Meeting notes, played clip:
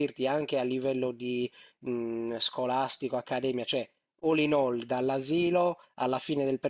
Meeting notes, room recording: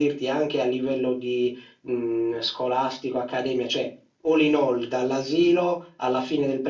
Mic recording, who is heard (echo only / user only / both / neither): echo only